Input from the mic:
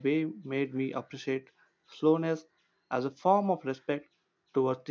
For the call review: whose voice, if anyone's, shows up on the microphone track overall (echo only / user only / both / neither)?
user only